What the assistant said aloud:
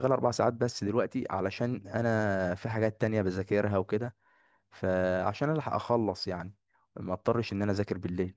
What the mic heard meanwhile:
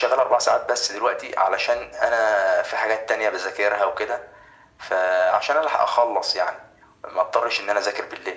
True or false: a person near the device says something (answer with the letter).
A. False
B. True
A